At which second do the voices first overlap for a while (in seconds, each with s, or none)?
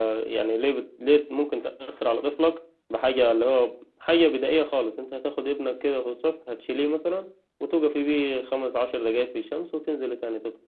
none